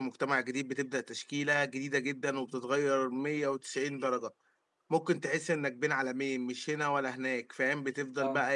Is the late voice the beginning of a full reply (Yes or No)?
No